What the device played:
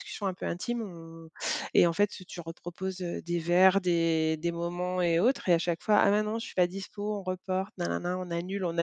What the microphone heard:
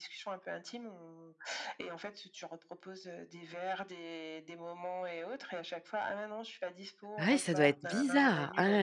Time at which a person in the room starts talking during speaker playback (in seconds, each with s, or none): 7.2 s